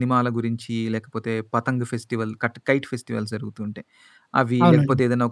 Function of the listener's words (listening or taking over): listening